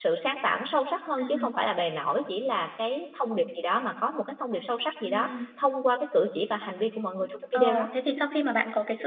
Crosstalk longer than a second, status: none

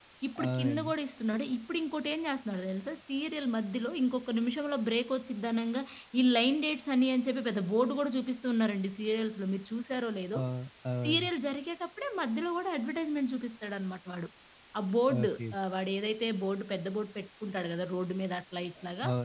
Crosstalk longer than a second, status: none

